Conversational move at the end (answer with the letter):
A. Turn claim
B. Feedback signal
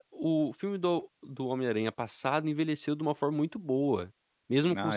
B